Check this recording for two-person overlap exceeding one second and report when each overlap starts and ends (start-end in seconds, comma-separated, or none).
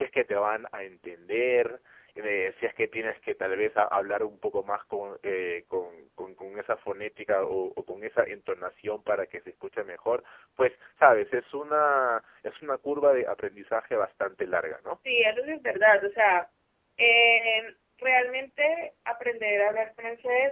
none